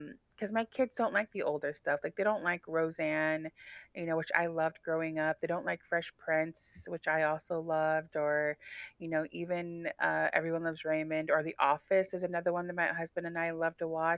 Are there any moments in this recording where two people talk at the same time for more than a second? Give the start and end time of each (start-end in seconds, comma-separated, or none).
none